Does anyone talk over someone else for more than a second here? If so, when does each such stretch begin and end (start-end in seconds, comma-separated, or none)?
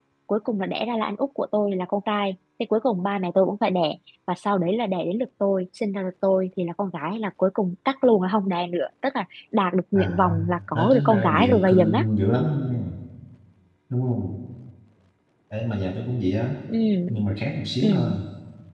10.7-12.0